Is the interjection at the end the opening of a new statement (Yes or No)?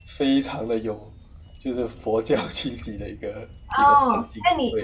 Yes